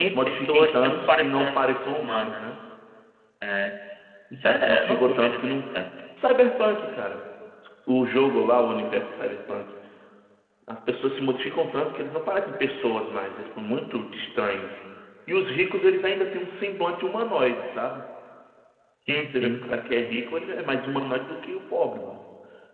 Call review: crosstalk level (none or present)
present